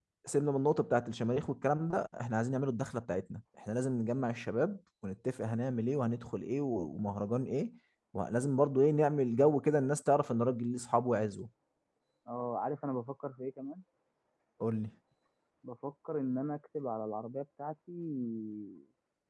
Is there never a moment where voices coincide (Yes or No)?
Yes